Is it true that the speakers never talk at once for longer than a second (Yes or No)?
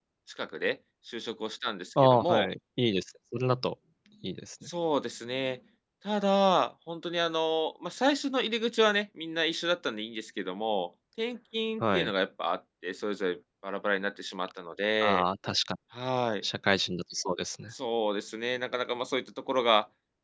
Yes